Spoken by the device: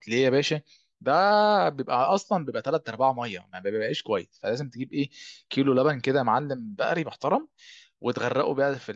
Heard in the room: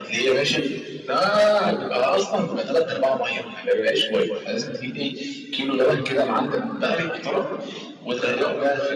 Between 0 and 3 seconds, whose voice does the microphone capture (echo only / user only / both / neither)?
echo only